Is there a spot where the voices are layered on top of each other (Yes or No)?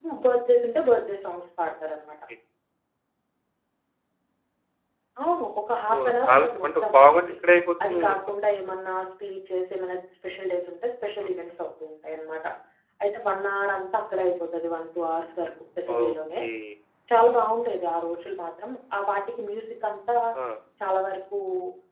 Yes